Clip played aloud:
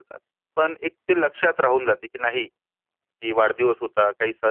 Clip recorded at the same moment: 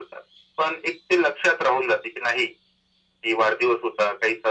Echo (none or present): present